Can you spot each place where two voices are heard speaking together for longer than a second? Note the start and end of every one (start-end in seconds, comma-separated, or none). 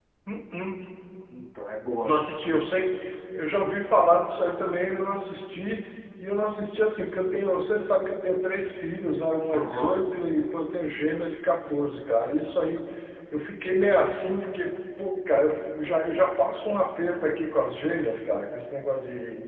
none